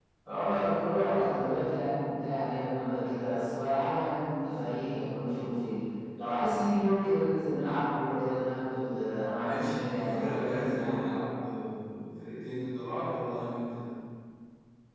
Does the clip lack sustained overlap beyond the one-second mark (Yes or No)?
No